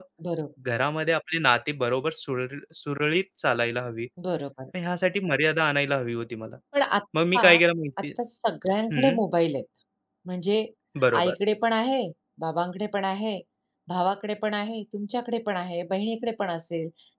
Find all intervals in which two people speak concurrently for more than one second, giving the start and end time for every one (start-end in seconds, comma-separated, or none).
none